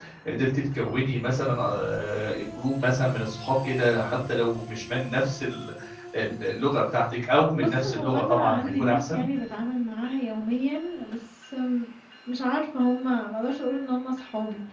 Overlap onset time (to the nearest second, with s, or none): 8 s